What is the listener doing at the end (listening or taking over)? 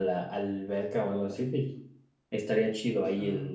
listening